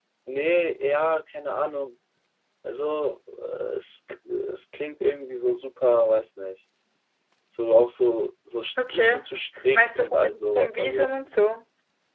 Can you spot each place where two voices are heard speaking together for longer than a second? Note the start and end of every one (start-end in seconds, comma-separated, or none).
9.7-11.2